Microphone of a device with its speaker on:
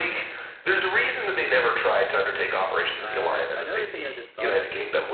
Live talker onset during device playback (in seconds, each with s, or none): 3.0 s